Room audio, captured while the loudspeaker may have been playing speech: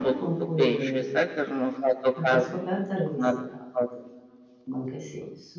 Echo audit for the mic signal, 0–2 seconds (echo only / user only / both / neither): both